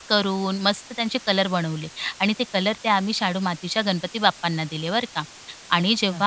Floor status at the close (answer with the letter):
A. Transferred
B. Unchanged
B